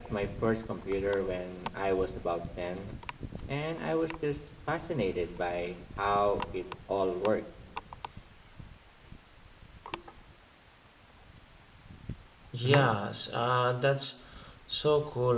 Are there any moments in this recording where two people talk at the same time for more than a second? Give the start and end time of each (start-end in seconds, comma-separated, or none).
none